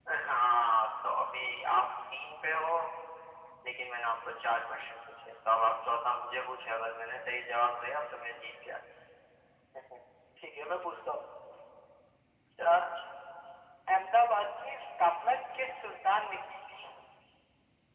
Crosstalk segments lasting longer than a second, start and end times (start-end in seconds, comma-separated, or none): none